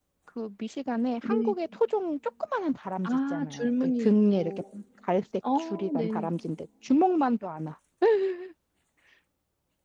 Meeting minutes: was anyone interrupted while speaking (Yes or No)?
Yes